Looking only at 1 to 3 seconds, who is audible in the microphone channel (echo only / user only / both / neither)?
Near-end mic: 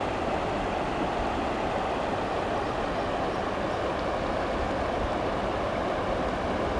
neither